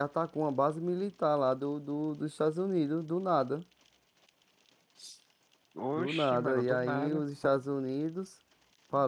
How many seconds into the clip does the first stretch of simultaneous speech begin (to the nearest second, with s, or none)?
6 s